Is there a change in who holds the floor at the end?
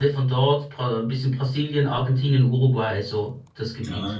Yes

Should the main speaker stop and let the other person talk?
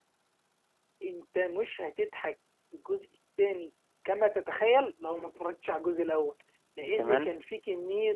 No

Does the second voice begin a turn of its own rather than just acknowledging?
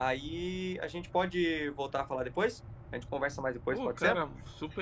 Yes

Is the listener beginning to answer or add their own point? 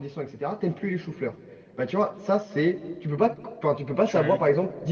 No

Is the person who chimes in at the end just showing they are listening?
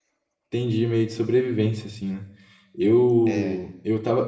Yes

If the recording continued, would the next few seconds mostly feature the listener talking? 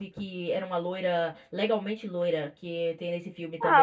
Yes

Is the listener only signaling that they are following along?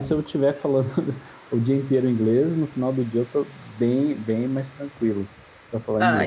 No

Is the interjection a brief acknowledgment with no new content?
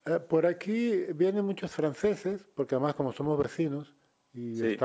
Yes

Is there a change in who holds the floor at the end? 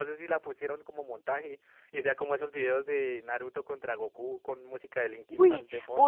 Yes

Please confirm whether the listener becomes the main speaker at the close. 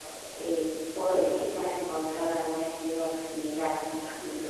No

